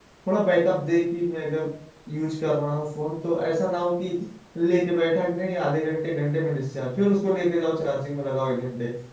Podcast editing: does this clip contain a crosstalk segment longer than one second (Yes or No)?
No